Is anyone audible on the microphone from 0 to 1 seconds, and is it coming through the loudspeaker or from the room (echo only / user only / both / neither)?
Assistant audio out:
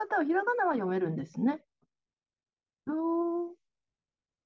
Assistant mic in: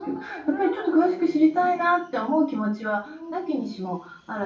both